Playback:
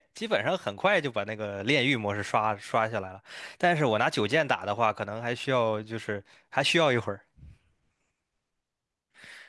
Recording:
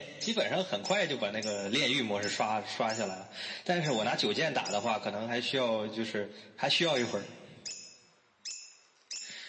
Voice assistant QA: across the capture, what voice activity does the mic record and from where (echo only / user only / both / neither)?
echo only